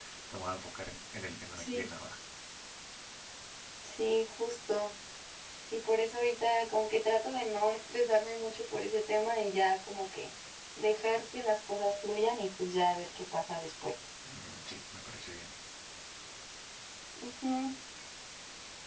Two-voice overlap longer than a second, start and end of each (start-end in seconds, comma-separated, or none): none